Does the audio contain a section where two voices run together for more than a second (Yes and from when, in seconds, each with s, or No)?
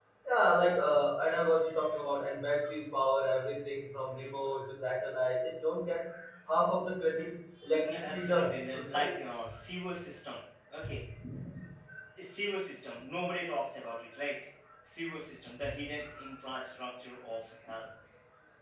Yes, from 7.8 s